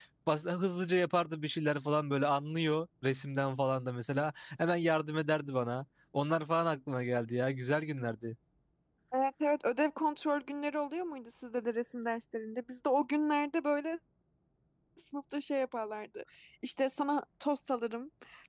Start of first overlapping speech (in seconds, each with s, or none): none